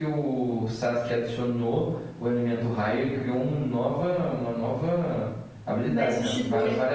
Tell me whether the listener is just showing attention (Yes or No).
No